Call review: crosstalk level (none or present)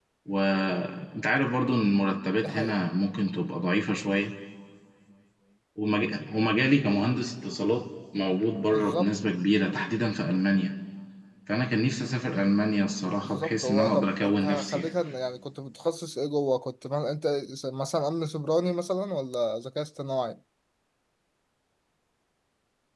present